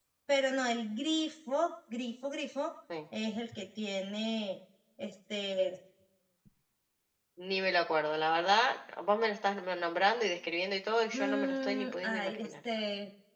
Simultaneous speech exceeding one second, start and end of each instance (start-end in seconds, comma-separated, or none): 11.1-12.5